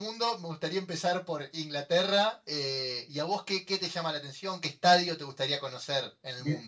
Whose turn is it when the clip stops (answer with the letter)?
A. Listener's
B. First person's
A